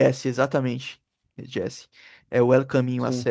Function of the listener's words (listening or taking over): listening